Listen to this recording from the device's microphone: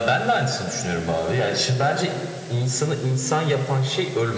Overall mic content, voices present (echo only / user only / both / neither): echo only